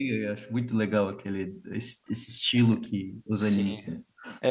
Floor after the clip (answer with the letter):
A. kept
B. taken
B